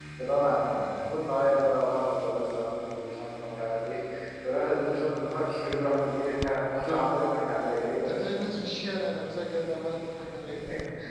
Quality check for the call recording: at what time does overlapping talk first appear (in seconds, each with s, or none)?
none